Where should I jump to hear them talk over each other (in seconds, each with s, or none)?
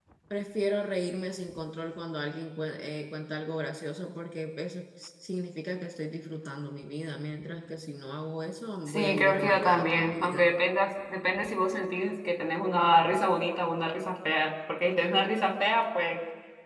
8.9 s